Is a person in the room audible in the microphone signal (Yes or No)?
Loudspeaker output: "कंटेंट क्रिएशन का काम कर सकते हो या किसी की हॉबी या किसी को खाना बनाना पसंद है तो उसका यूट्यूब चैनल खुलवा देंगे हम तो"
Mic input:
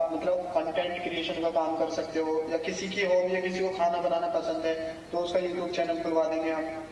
No